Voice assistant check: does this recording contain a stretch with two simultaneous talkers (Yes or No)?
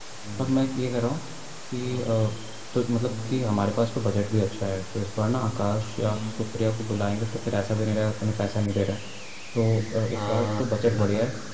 Yes